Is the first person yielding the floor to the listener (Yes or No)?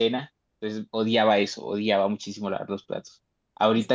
No